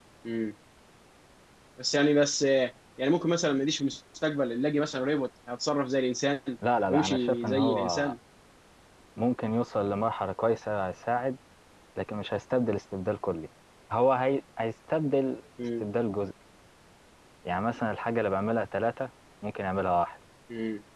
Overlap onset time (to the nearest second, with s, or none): 7 s